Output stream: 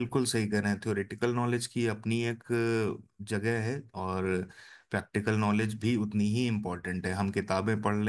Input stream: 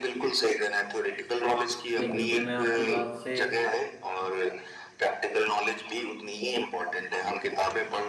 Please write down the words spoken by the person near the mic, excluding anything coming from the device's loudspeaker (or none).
नहीं बिल्कुल मैं आपकी बात से